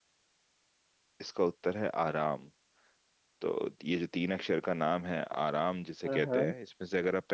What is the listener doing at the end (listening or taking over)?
listening